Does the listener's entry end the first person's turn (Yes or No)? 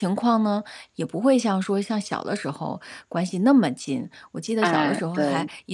No